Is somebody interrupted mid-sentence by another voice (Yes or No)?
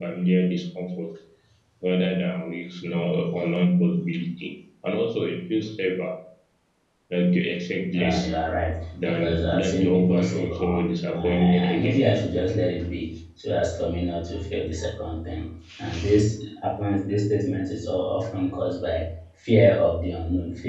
Yes